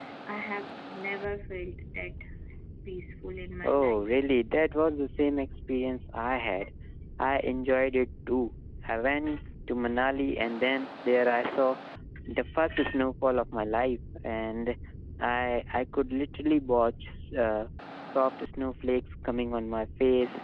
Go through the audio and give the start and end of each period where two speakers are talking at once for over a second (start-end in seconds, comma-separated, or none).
none